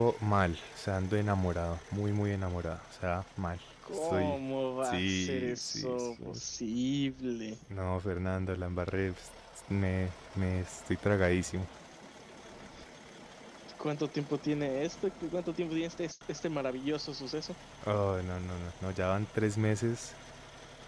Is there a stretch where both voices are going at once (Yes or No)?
Yes